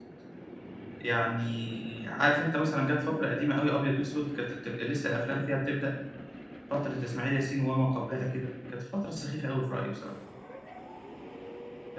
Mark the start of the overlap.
none

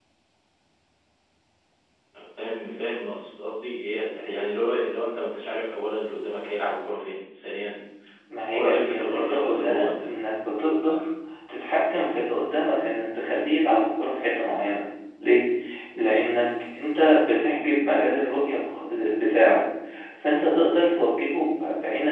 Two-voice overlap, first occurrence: 8.5 s

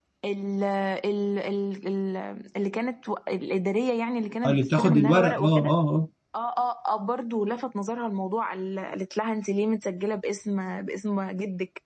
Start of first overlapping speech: 4.4 s

